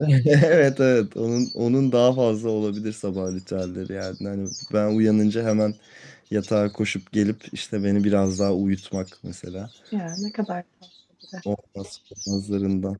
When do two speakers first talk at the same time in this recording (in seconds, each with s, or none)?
none